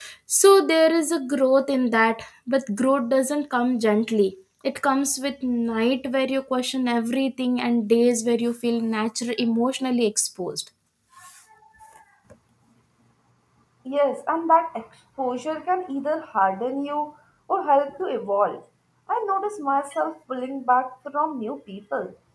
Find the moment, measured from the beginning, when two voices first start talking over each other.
none

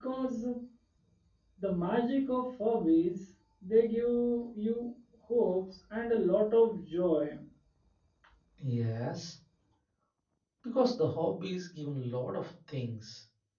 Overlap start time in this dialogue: none

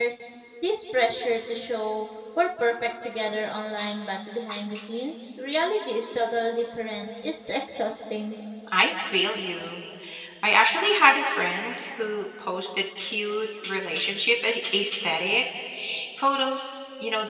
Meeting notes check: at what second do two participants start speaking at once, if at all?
none

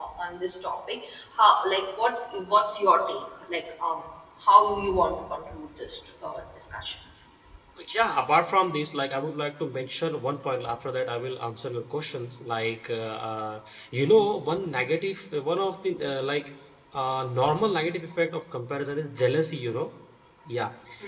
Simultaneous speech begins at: none

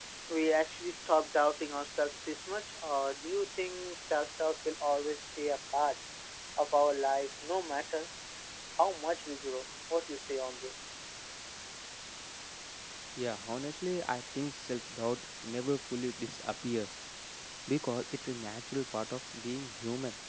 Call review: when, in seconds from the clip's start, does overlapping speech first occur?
none

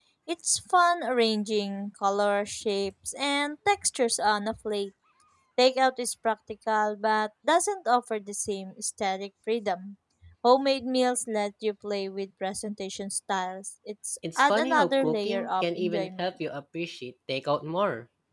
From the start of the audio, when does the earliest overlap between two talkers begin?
14.2 s

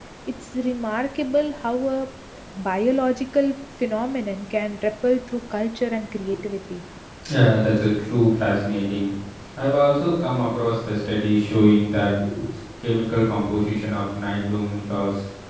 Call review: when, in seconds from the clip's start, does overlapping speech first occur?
none

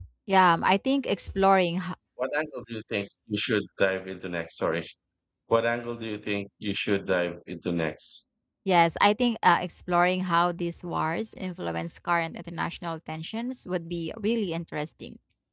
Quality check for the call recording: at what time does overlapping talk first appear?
none

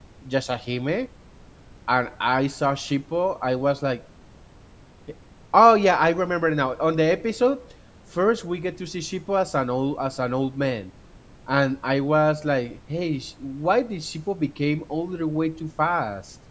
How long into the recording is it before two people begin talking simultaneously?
none

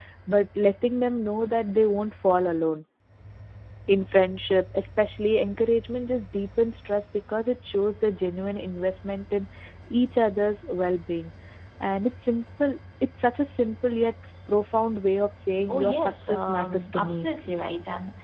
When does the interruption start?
15.7 s

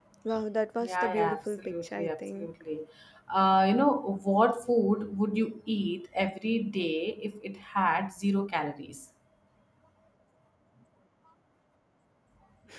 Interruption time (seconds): 0.8 s

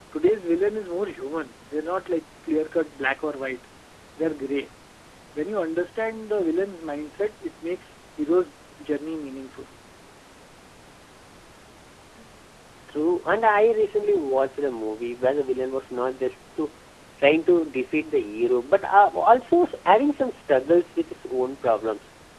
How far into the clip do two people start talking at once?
none

